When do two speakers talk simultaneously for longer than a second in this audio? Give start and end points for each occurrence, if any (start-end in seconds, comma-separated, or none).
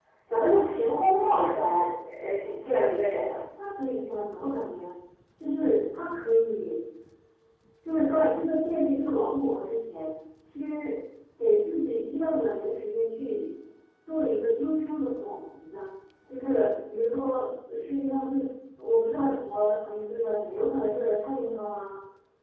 none